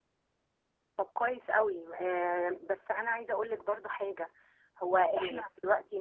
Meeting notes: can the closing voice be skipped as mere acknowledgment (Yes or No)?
Yes